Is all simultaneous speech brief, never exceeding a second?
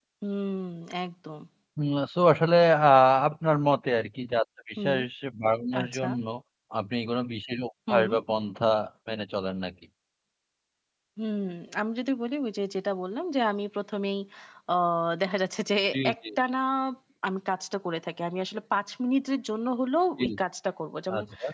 Yes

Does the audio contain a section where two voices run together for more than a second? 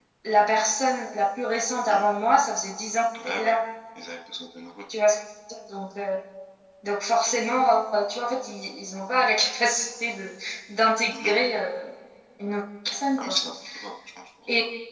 No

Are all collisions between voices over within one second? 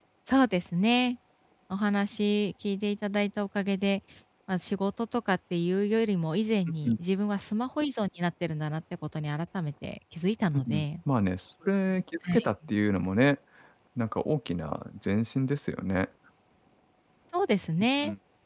Yes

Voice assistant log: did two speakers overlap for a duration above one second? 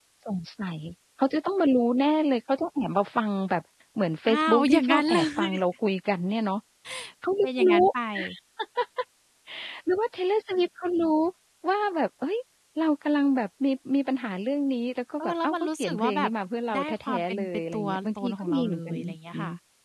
Yes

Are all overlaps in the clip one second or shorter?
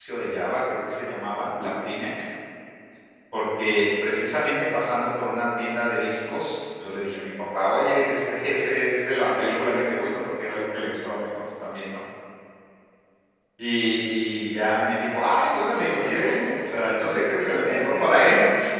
No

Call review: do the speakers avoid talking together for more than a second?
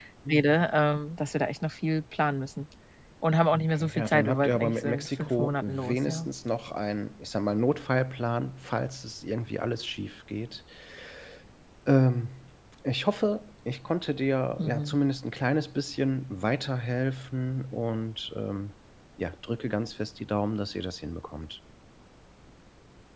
No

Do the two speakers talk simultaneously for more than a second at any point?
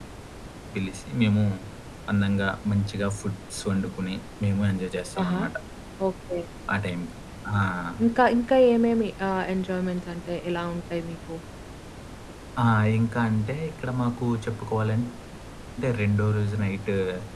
No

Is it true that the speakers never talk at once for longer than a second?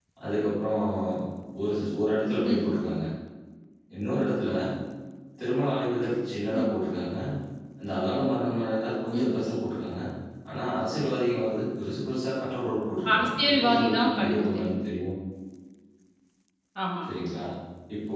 No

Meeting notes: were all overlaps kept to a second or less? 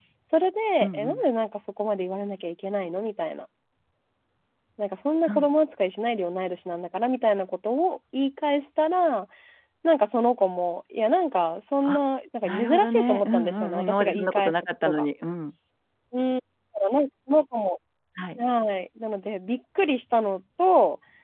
No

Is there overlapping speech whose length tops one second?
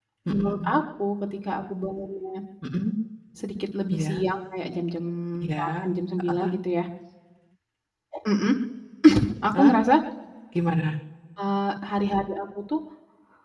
No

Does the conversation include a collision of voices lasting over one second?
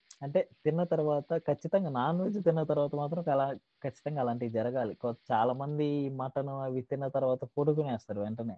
No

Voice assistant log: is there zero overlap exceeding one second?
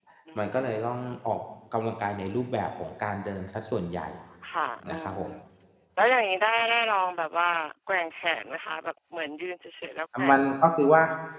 Yes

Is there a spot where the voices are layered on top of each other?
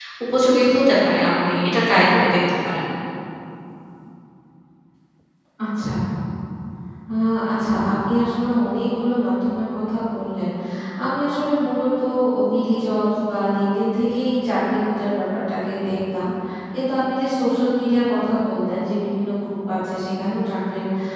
No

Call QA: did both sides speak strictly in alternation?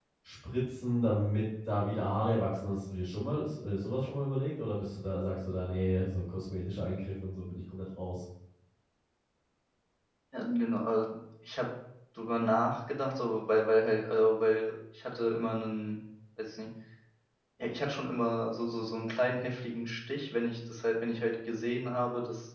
Yes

